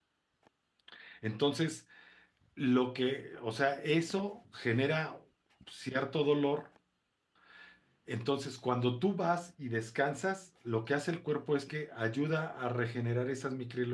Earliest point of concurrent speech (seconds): none

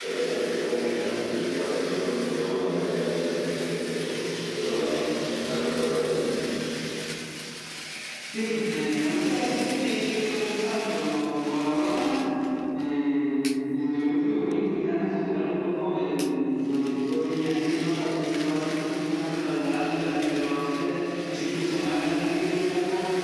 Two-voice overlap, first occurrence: none

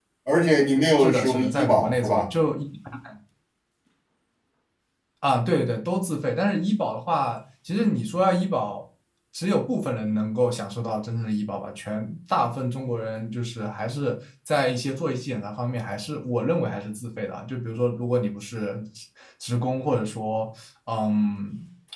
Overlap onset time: 1.0 s

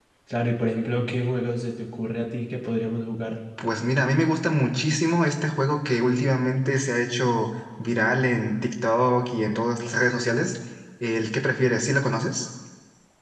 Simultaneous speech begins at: none

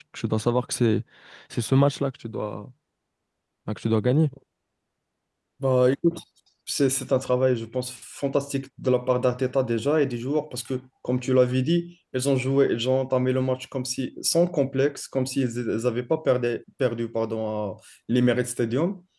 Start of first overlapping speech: none

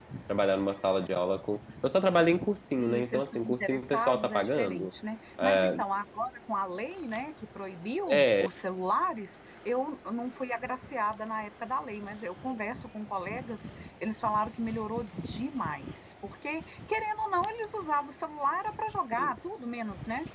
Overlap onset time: 2.8 s

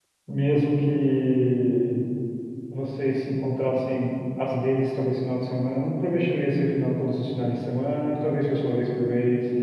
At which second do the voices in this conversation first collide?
none

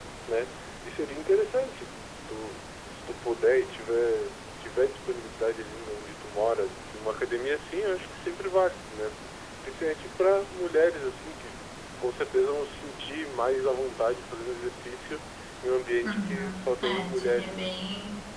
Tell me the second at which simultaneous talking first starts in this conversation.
16.0 s

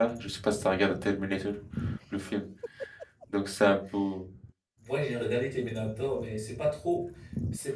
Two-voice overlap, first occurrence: none

